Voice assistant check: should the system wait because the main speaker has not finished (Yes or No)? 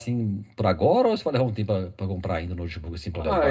No